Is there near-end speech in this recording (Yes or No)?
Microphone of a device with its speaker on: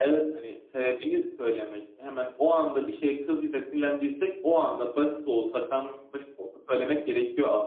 No